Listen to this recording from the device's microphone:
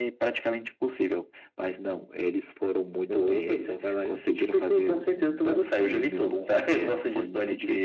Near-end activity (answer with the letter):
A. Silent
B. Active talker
A